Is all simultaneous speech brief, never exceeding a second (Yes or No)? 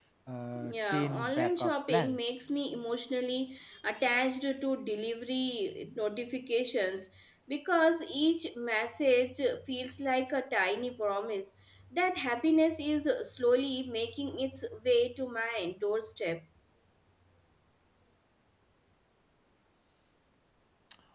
No